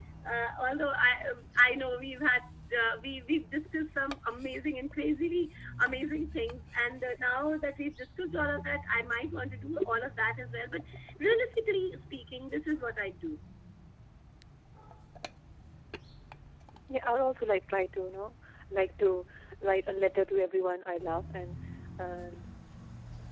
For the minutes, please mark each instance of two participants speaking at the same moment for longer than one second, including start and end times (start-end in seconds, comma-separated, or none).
none